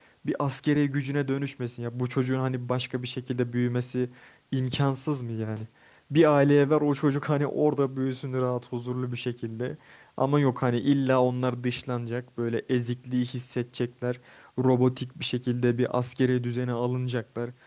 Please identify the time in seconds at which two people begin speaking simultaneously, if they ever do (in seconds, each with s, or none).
none